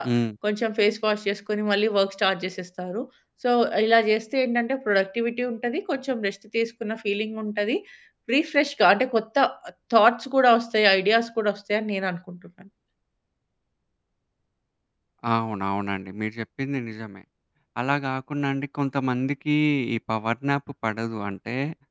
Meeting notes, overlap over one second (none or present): none